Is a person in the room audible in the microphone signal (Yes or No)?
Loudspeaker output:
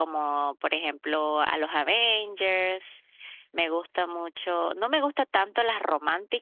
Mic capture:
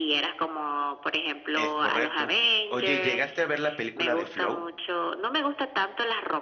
Yes